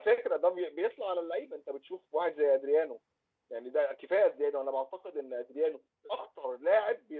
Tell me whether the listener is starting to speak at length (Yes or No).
No